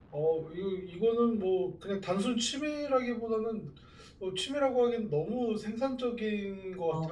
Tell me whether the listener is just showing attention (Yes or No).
No